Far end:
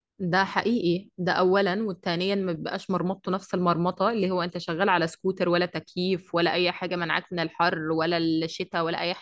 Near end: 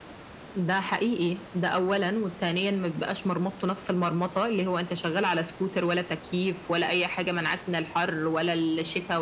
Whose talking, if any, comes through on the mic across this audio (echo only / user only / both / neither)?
echo only